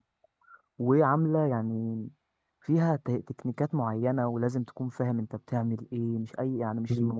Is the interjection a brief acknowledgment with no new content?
Yes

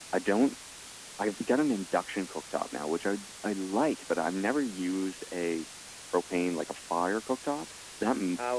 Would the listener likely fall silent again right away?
No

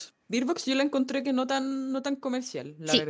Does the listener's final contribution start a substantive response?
Yes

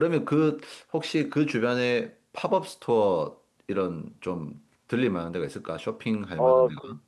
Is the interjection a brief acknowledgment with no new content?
No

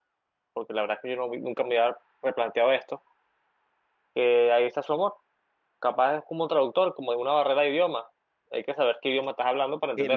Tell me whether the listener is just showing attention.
No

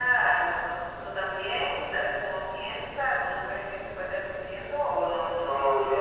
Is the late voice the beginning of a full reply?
Yes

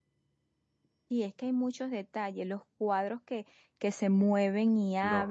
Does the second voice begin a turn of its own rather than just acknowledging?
Yes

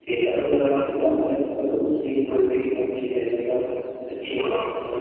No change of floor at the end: Yes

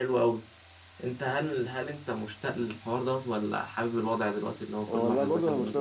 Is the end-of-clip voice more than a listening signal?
Yes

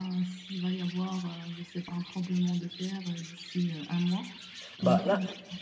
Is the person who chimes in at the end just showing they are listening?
No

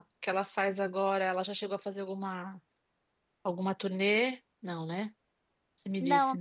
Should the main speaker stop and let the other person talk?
Yes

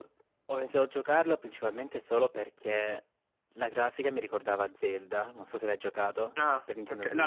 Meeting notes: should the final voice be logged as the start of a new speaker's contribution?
Yes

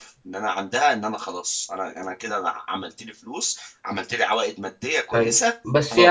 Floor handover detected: Yes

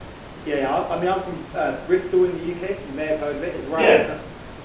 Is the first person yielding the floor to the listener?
No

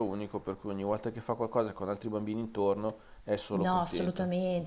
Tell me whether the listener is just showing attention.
No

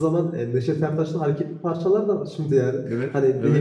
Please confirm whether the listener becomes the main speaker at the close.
No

